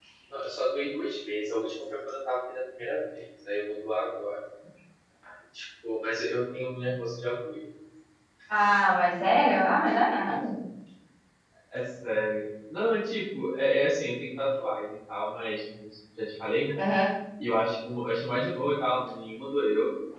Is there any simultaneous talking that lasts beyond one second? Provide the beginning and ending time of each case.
none

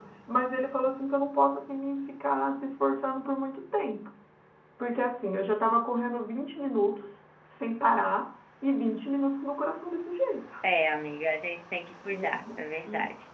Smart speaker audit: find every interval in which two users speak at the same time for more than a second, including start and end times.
none

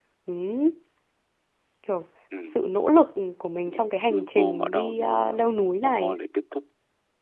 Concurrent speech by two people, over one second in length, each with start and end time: 4.1-5.4

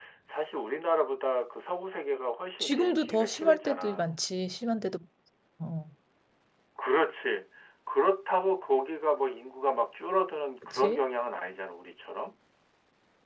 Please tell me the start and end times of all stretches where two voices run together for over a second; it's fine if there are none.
2.6-4.1

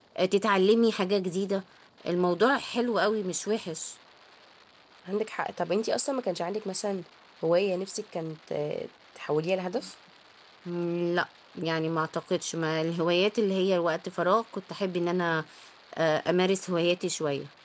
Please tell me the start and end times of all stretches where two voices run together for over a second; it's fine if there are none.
none

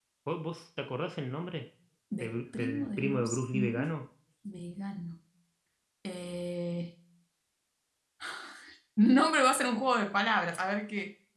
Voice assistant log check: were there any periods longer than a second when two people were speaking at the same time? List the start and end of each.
2.2-3.9

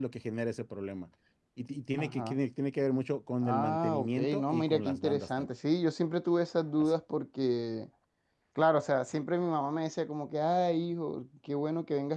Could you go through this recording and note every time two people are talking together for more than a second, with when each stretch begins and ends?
3.4-5.5

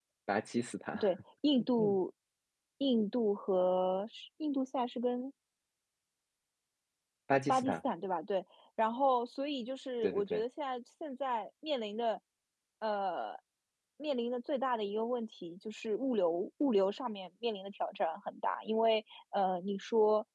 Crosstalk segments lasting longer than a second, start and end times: none

